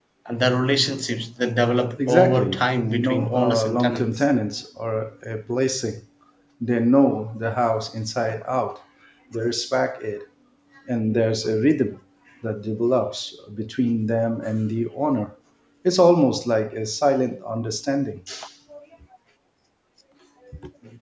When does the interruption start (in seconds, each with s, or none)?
2.0 s